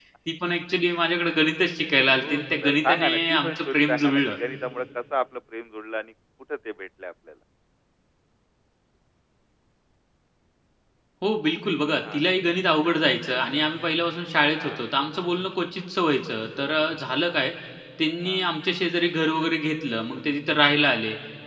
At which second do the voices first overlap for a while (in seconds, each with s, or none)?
2.2 s